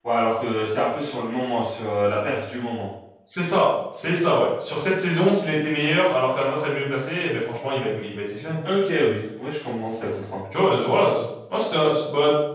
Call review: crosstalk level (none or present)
none